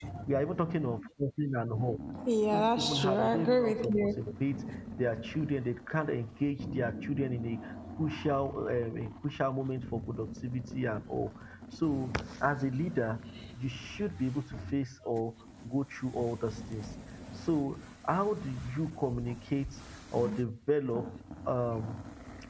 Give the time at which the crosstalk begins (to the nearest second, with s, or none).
3 s